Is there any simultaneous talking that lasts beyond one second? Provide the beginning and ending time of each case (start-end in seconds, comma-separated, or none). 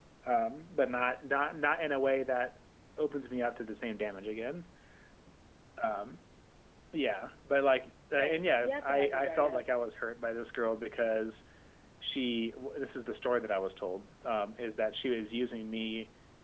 8.1-9.6